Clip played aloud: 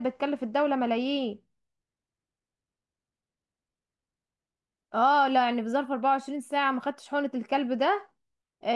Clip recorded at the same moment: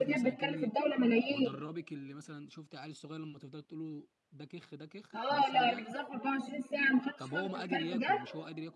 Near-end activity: present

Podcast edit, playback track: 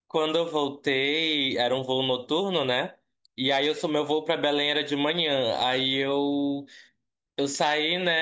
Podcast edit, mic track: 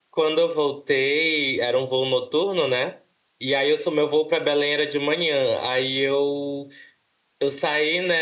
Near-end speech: none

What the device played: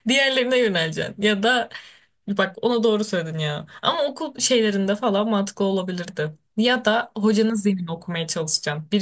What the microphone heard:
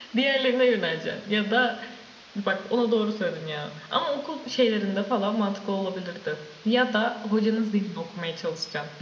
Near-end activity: none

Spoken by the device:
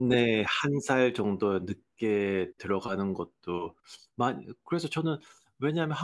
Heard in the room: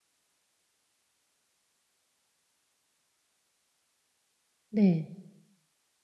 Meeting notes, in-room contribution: present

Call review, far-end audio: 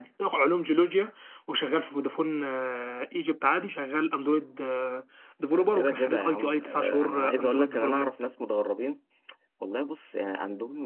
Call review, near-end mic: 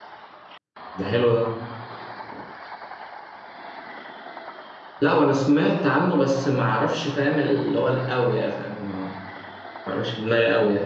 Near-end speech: present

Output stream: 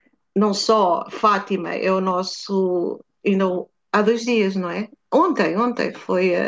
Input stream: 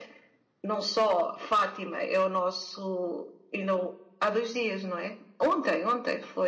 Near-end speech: none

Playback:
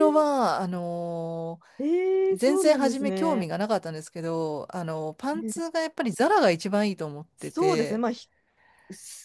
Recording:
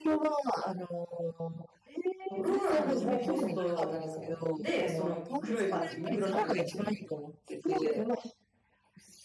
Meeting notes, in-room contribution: present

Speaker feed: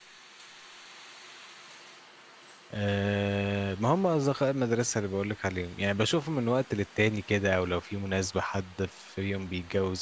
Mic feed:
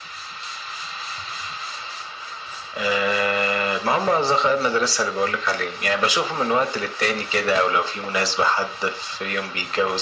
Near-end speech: none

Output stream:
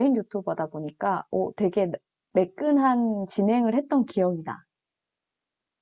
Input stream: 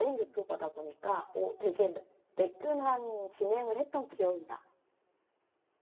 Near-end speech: none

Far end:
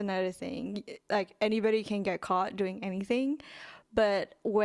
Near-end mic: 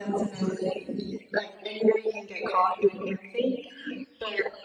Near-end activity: none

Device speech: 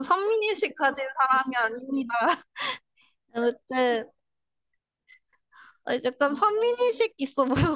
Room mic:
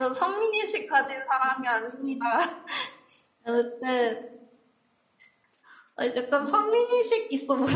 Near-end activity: none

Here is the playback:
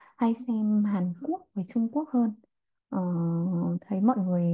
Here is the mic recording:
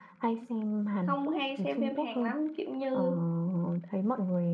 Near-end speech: present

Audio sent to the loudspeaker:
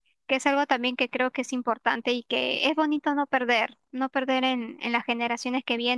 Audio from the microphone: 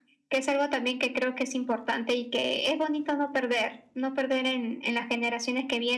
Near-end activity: none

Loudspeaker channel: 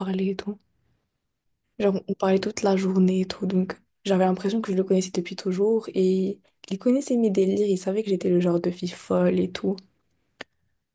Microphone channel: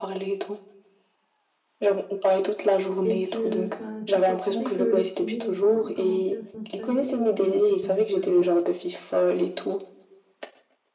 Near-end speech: present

